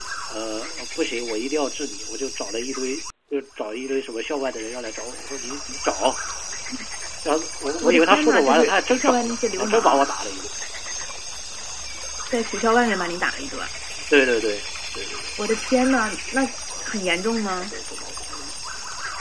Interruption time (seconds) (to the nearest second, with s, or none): 8 s